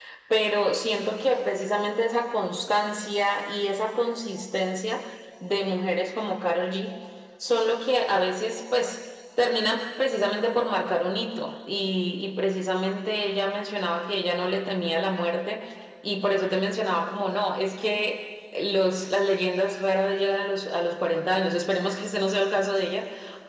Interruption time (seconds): none

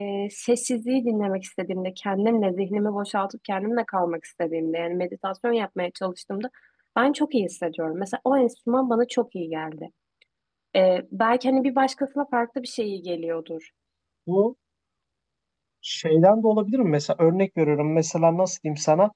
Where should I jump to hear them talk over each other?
none

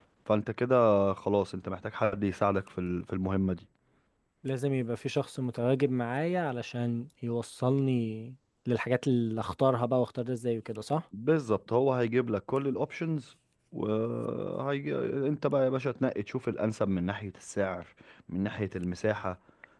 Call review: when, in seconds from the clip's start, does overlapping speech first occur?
none

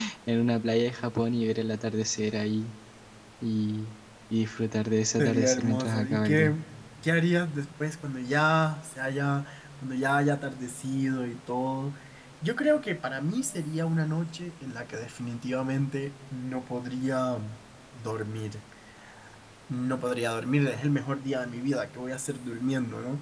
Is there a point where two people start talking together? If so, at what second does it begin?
5.2 s

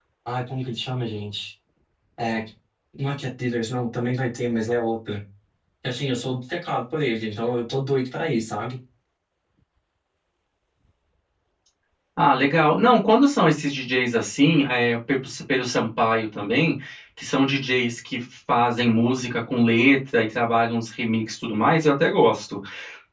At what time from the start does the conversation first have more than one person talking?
none

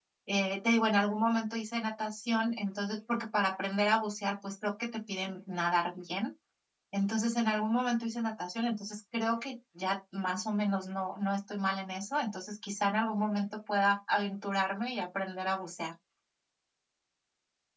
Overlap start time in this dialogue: none

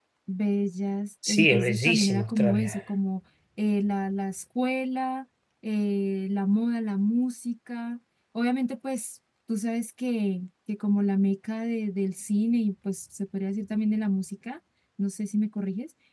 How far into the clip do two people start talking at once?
1.3 s

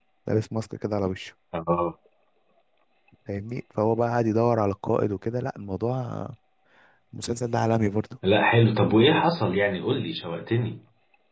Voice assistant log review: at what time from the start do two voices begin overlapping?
none

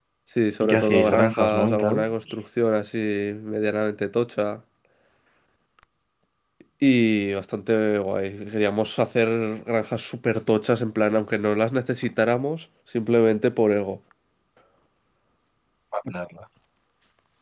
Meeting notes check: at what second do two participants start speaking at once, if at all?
0.6 s

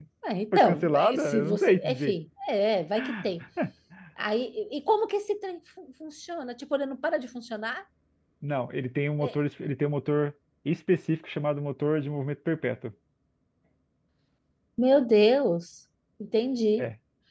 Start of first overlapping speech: 0.5 s

